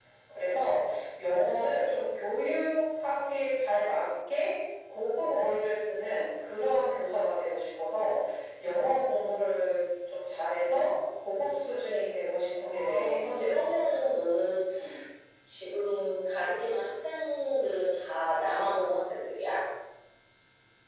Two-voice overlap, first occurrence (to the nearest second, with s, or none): 13 s